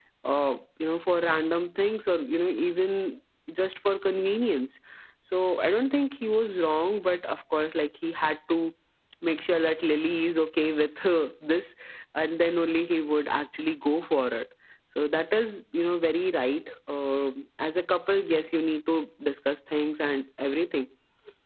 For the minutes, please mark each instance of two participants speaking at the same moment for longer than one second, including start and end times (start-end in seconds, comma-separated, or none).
none